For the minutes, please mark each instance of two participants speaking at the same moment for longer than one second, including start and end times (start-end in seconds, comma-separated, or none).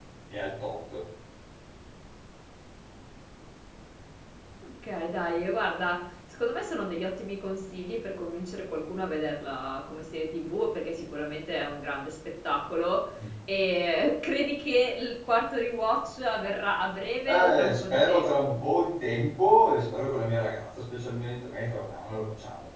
17.3-18.6